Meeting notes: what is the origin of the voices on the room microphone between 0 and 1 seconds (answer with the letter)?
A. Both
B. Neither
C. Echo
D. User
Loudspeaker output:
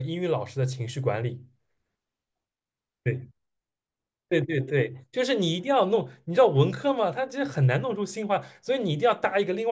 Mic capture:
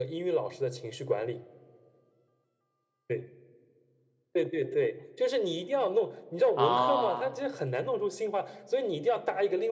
C